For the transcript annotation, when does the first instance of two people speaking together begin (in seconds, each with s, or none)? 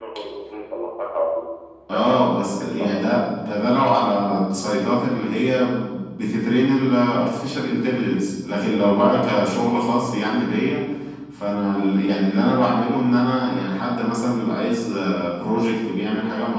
1.9 s